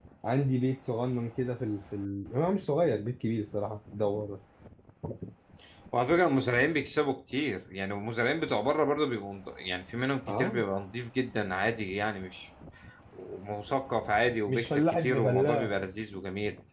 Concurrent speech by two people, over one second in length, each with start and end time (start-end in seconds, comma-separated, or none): 14.5-15.7